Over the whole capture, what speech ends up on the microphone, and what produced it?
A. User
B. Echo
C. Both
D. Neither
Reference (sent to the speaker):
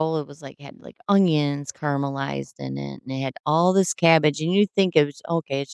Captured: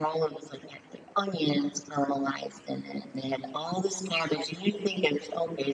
B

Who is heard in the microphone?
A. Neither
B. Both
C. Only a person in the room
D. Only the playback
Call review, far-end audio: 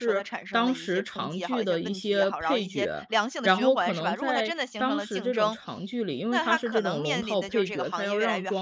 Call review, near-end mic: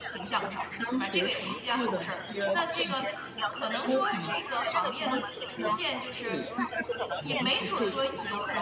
B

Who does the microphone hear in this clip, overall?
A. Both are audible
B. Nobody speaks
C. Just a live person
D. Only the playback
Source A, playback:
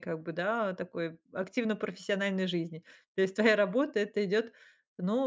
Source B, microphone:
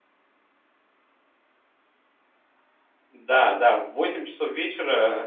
C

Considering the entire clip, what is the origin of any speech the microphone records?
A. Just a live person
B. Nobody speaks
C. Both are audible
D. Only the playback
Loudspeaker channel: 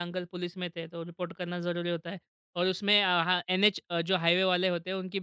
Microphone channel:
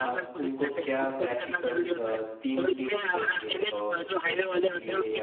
C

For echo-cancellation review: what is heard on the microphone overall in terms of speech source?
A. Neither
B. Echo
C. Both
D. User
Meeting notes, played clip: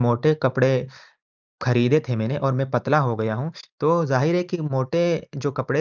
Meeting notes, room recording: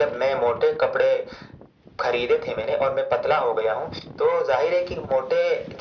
B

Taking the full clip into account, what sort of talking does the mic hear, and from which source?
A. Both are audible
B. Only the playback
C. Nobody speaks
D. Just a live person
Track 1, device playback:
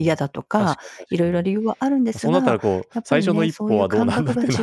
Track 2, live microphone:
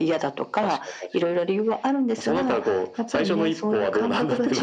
B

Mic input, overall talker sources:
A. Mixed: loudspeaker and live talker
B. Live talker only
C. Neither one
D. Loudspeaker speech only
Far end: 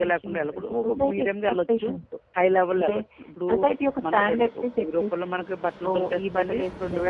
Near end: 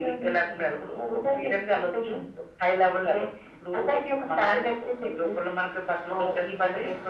D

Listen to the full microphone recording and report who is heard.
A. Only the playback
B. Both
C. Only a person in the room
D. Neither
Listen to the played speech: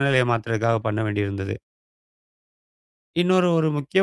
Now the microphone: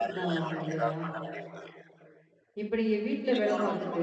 B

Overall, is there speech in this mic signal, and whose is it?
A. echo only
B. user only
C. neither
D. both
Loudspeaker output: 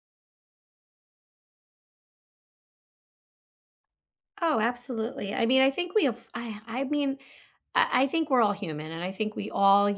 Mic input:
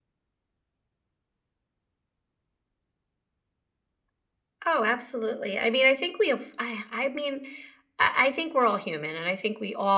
A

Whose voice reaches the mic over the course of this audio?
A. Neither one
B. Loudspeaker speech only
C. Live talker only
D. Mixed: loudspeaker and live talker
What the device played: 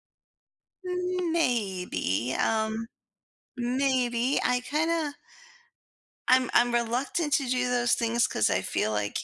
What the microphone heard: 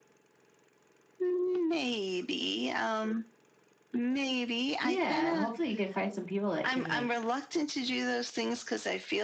D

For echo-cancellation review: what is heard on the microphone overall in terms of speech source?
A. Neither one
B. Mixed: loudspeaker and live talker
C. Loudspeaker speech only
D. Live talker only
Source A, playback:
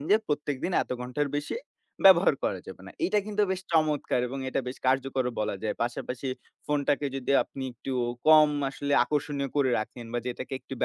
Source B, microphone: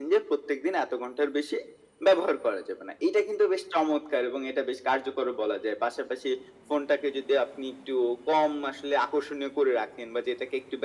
C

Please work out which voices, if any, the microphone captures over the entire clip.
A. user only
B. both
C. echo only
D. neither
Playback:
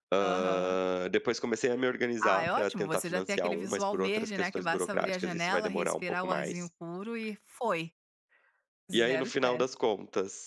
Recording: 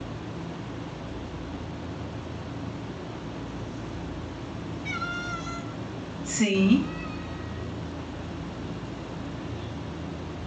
A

